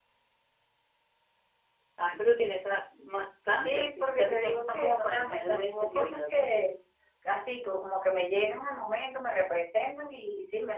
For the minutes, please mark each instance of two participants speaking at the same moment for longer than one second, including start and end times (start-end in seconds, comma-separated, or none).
3.6-6.4